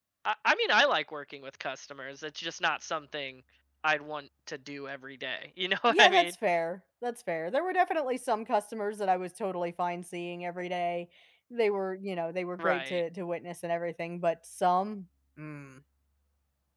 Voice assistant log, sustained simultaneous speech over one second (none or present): none